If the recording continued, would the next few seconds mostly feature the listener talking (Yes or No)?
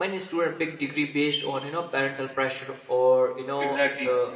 No